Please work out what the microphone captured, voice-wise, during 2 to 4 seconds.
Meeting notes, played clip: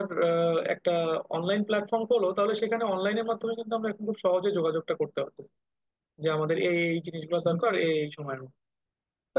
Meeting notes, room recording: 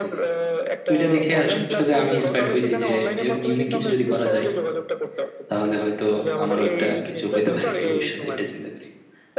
both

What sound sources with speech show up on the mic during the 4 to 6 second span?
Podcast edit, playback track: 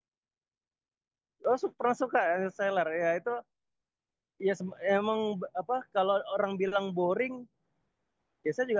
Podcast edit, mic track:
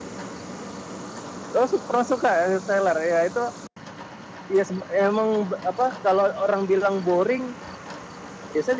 echo only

